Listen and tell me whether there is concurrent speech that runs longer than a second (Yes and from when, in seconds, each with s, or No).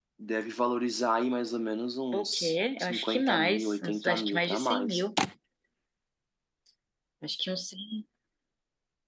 Yes, from 2.1 s